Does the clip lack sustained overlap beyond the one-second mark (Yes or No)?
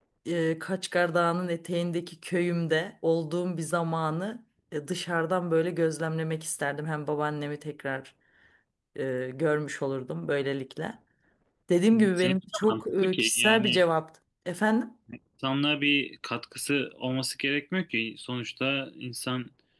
No